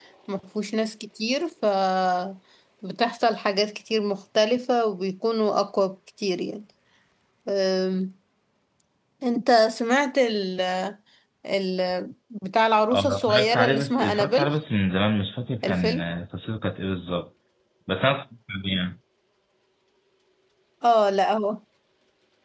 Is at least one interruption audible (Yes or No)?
Yes